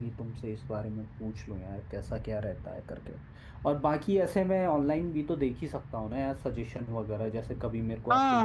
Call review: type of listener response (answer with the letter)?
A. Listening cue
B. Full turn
B